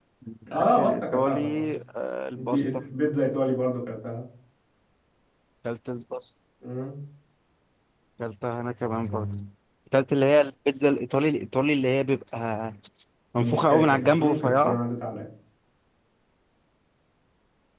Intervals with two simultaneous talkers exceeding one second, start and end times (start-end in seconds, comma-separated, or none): 0.5-1.8, 13.3-14.8